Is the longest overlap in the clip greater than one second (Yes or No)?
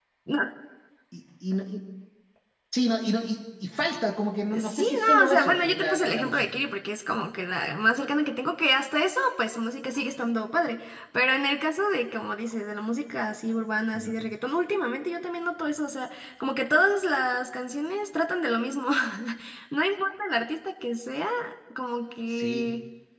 Yes